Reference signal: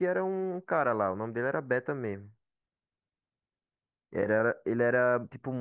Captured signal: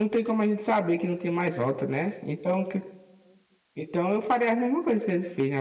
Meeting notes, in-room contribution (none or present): present